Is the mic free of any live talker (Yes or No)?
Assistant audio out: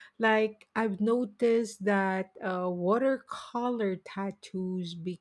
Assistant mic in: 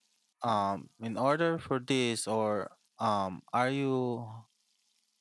No